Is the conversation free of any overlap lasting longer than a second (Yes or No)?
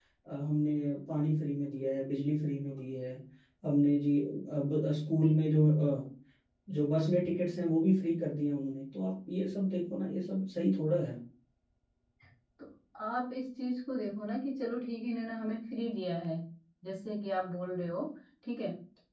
Yes